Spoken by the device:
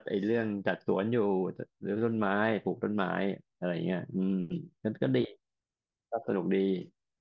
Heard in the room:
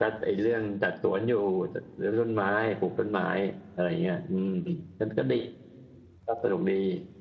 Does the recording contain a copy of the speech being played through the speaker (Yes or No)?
Yes